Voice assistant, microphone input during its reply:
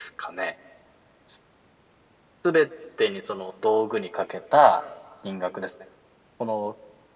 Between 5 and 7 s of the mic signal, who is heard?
echo only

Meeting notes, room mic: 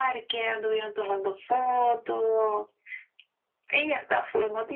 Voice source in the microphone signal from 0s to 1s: echo only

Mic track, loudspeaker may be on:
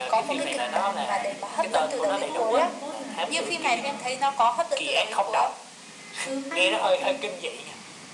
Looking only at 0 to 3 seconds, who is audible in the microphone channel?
both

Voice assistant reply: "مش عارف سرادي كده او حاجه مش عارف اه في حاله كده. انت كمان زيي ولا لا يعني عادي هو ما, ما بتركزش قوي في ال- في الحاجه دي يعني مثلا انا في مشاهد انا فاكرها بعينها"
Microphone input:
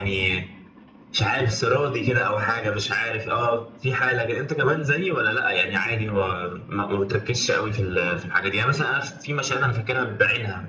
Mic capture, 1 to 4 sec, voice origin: echo only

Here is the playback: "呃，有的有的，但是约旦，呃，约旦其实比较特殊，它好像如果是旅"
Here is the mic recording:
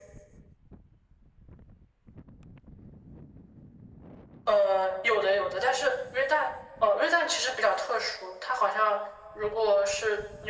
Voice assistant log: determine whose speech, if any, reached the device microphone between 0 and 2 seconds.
neither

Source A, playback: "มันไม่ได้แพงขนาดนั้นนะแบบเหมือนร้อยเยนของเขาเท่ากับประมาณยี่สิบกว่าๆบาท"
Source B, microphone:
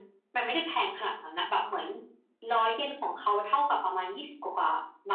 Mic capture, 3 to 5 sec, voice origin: echo only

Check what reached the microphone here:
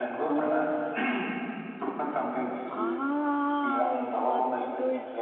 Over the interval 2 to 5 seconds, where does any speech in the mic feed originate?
both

